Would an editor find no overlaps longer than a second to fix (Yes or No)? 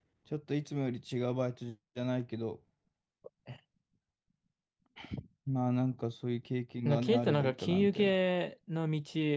No